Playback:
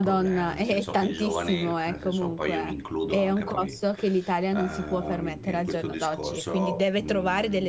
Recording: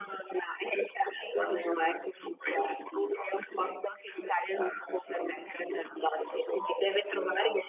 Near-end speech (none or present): none